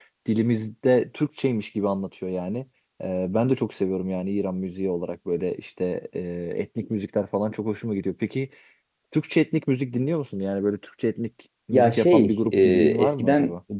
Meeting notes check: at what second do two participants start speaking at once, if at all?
11.7 s

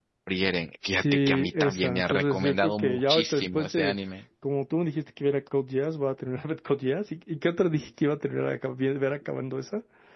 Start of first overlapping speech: 0.9 s

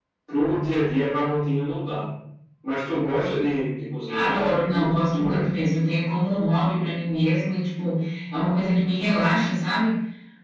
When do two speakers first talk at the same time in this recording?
4.1 s

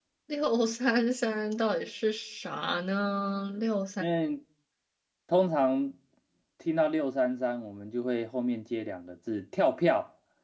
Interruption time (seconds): none

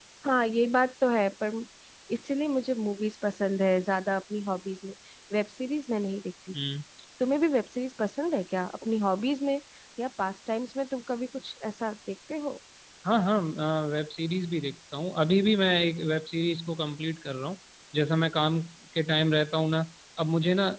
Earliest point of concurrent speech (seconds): none

